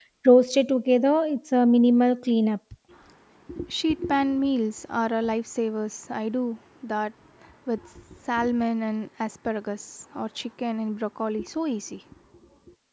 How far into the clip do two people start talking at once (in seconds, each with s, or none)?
none